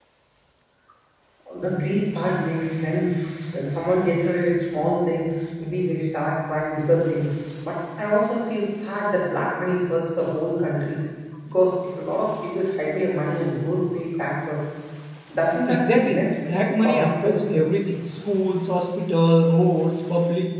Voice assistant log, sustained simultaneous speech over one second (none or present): present